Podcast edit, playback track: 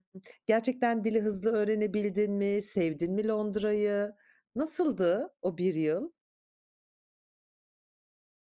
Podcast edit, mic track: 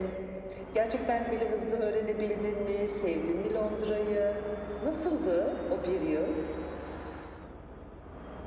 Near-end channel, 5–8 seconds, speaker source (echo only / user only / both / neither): echo only